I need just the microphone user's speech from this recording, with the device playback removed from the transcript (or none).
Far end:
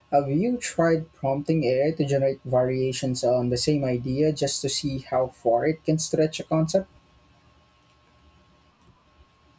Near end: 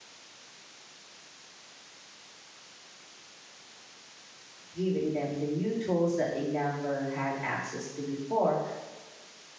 giving them the new tools that they never had access to before.